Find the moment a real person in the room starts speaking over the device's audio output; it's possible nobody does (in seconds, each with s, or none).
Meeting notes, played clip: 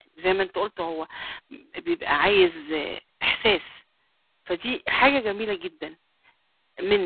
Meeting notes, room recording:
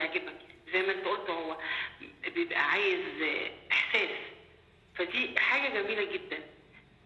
none